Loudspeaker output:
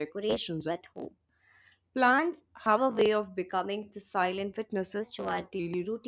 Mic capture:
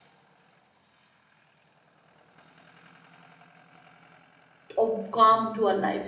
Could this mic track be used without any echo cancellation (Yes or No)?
Yes